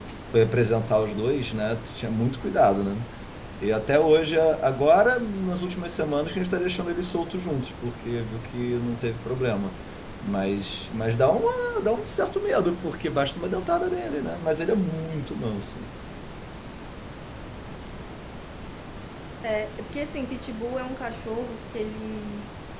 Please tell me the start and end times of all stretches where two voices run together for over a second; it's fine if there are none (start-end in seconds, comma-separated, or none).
none